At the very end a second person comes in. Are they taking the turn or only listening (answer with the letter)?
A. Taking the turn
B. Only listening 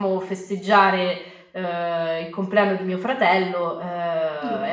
B